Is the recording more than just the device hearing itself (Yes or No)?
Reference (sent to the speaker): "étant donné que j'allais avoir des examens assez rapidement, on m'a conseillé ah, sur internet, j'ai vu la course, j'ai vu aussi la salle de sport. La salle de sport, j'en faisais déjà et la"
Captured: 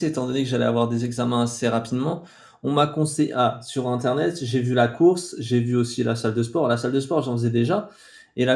No